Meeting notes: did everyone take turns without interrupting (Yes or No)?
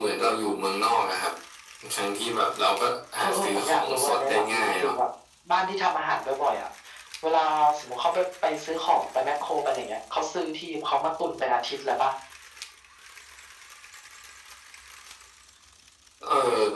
No